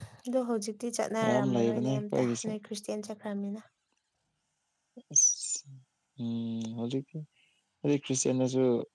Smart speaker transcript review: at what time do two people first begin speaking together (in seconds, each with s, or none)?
1.2 s